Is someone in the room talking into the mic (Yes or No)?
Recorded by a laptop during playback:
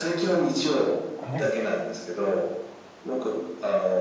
Yes